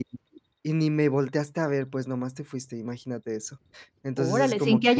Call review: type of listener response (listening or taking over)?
taking over